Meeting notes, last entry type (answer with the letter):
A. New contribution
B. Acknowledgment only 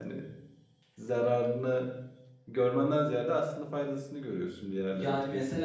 A